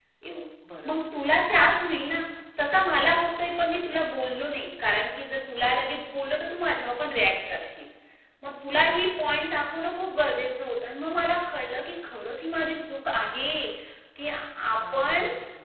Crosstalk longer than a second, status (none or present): none